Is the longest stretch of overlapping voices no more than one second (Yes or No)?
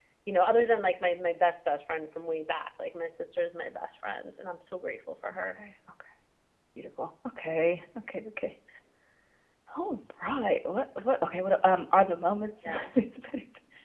Yes